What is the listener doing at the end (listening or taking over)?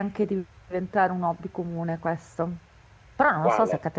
listening